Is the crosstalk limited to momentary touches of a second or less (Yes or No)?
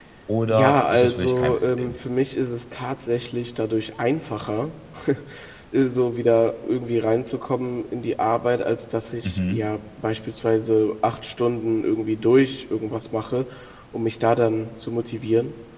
No